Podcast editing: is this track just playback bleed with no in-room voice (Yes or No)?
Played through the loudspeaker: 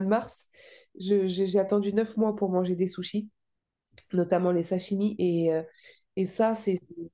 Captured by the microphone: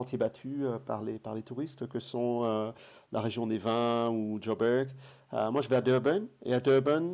No